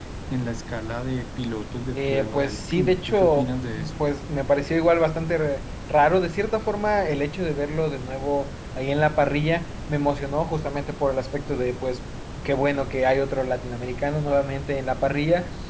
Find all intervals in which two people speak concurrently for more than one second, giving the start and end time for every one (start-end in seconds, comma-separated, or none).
1.9-4.1